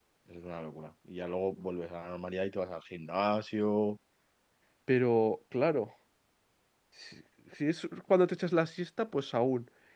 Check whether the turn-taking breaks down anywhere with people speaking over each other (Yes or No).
No